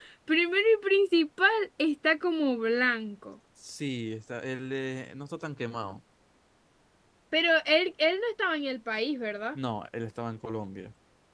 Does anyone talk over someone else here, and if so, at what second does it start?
none

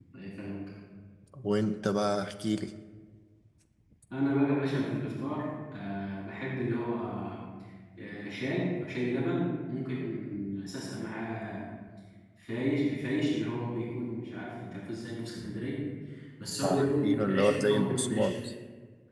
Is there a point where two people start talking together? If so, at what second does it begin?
16.6 s

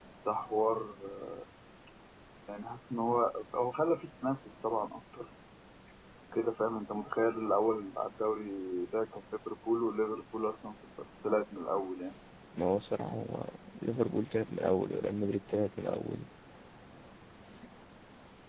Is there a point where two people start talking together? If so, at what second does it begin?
none

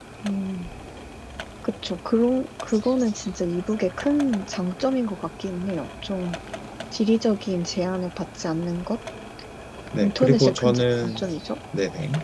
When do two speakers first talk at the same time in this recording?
10.0 s

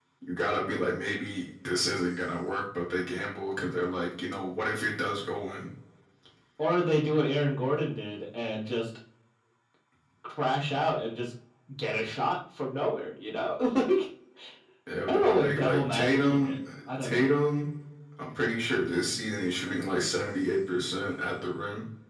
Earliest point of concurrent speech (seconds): 15.1 s

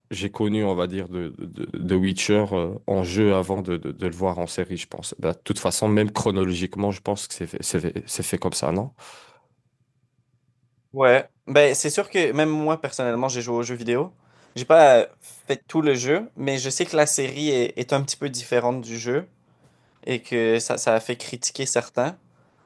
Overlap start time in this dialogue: none

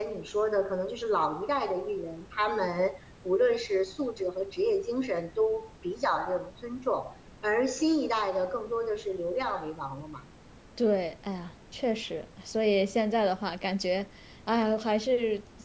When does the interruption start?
none

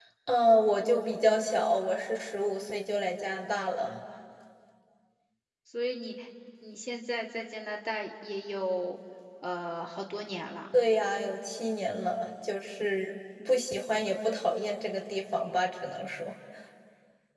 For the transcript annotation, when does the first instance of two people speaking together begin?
none

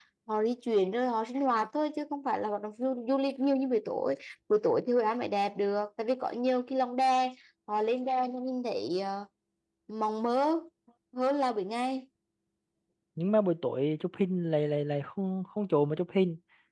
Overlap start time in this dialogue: none

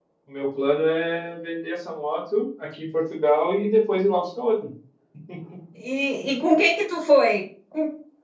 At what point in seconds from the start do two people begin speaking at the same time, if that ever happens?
none

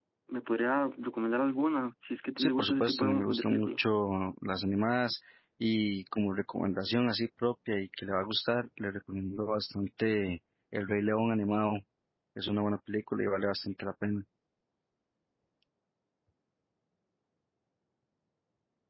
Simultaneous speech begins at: 2.4 s

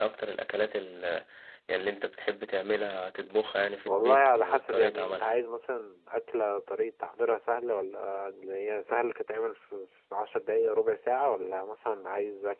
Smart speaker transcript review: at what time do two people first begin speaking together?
3.9 s

